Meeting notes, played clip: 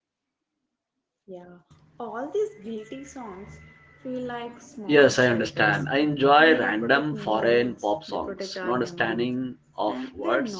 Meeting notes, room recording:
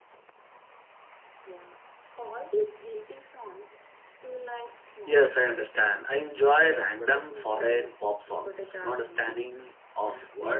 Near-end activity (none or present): none